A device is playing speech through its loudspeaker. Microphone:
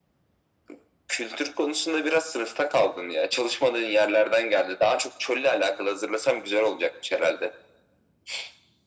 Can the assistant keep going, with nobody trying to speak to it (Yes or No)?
Yes